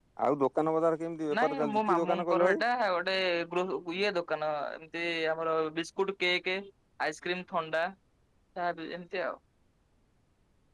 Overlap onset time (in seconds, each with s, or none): 1.3 s